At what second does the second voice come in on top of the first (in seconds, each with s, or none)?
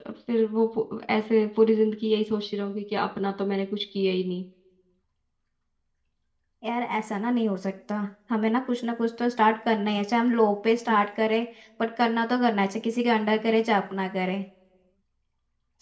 none